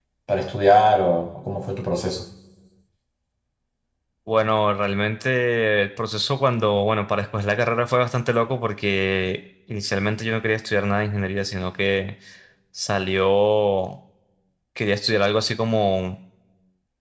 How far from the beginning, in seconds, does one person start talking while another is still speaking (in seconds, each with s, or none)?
none